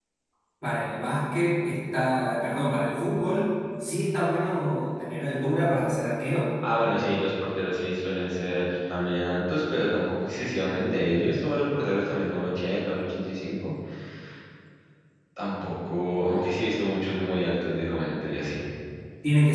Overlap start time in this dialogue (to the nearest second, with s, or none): none